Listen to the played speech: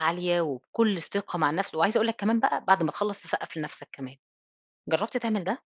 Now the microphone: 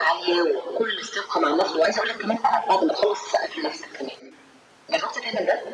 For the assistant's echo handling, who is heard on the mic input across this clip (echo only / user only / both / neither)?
echo only